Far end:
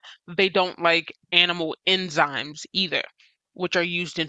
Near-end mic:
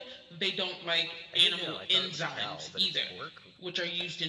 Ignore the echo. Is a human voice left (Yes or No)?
Yes